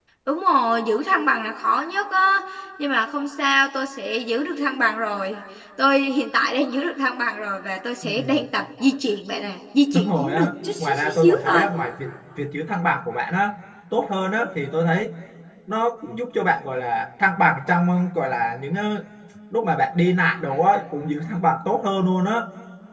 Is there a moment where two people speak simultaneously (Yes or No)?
Yes